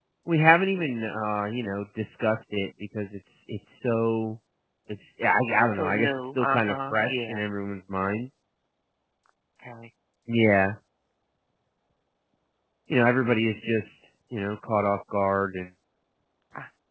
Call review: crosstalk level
present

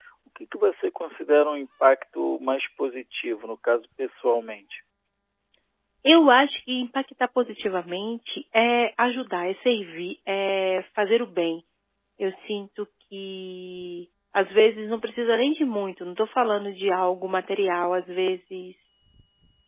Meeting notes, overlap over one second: none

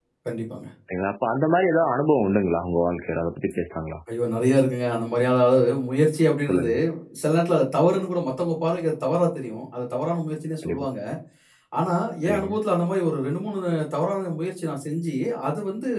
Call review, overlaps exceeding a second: none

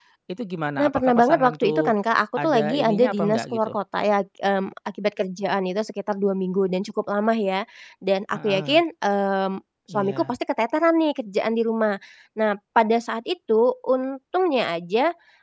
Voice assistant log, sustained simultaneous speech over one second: present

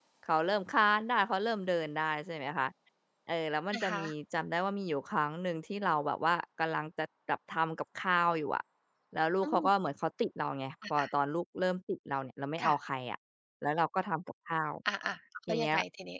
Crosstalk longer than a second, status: none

